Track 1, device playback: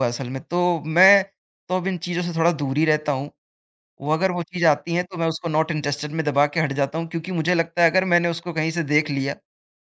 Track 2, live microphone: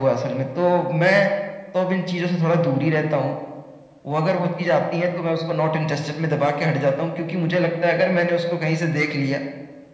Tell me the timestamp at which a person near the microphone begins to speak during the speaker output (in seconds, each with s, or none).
none